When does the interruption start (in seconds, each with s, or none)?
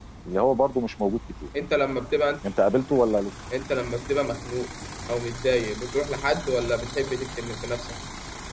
none